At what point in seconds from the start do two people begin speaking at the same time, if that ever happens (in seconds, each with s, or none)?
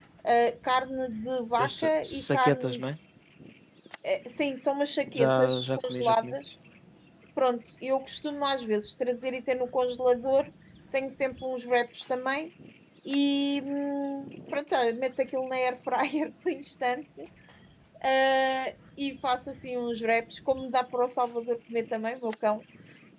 1.6 s